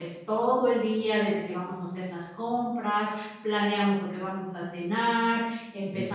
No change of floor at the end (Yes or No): Yes